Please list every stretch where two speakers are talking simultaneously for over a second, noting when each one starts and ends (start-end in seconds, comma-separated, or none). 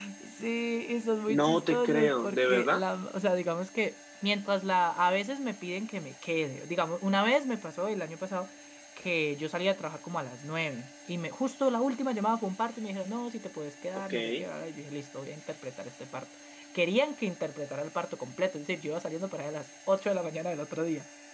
1.3-2.8